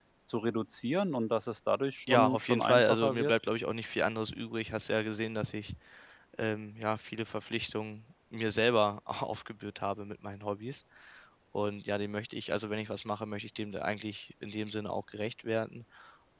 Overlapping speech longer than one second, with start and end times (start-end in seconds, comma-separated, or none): 2.1-3.3